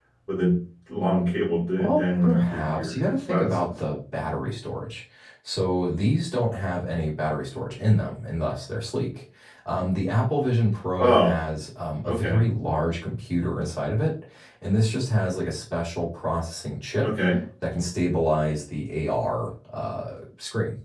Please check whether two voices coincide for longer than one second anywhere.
Yes, from 1.8 s

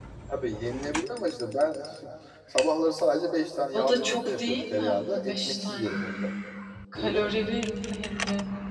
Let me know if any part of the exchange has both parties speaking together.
Yes, from 3.7 s

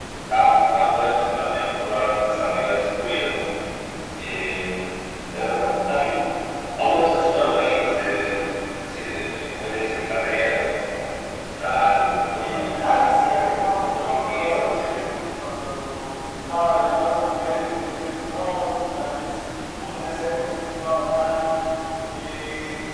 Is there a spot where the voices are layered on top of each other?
Yes, from 12.4 s

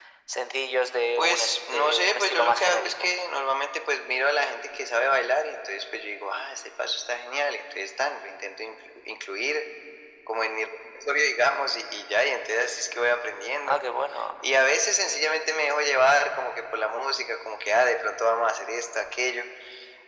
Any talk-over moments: Yes, from 1.2 s

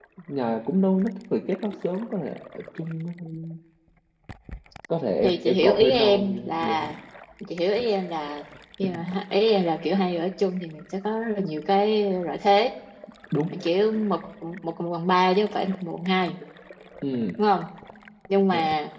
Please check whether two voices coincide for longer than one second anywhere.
Yes, from 5.2 s

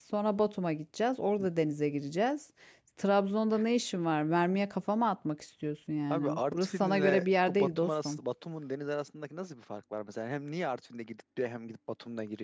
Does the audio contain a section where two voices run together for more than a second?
Yes, from 6.1 s

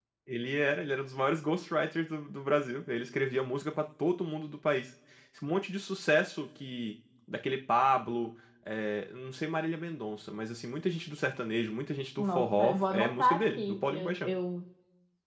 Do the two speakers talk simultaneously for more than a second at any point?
Yes, from 12.2 s

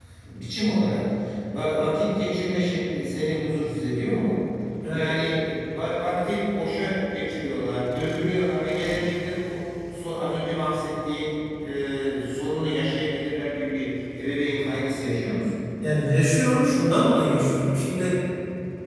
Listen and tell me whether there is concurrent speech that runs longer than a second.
No

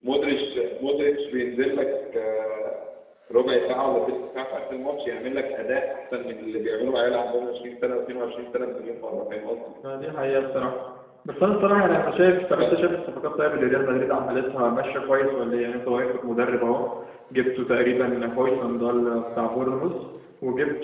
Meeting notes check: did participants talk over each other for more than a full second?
No

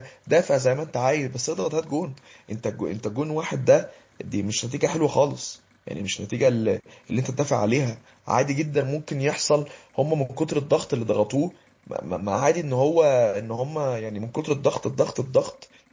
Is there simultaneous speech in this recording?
No

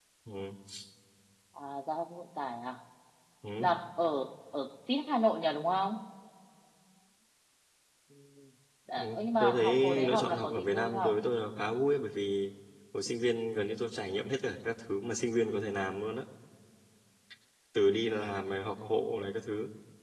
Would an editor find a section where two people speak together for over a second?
Yes, from 9.0 s

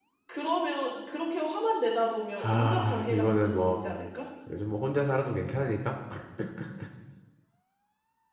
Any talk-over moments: Yes, from 2.4 s

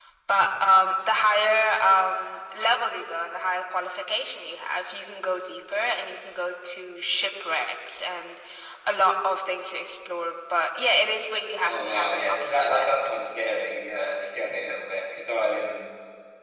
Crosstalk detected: Yes, from 11.6 s

